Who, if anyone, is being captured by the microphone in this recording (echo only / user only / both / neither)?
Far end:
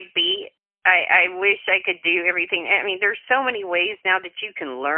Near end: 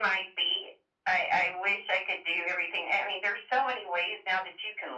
echo only